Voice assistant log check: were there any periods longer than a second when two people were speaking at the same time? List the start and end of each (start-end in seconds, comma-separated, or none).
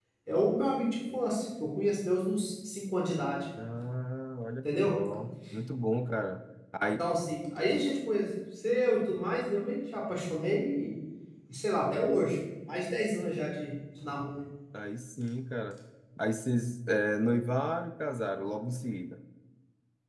none